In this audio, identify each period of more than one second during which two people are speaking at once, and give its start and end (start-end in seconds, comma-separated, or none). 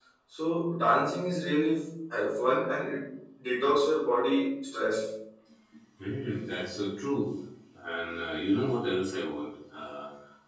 none